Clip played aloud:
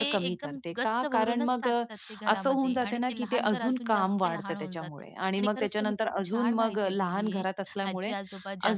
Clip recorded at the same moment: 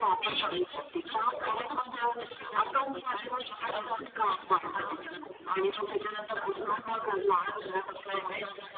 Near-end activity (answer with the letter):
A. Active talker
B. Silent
B